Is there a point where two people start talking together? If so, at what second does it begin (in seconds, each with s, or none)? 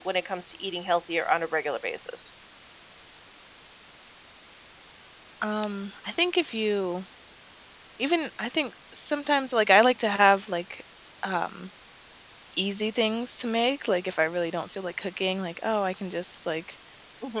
none